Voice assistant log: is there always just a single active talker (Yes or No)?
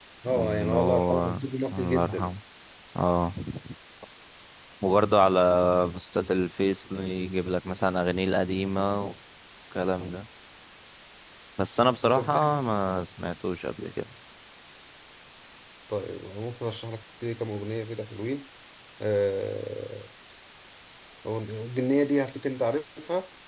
No